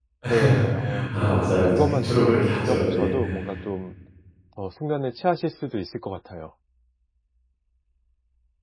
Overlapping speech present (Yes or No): Yes